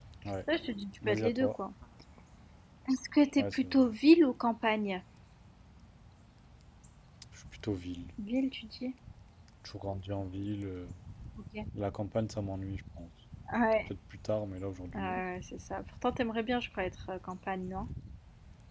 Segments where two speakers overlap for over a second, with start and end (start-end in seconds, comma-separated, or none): none